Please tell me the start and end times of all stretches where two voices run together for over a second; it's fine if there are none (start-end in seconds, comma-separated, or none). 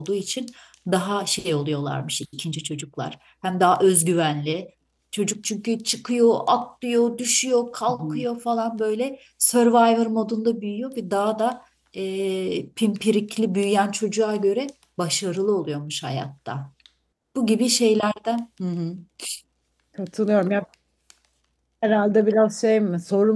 none